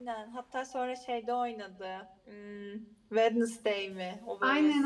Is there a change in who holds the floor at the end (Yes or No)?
Yes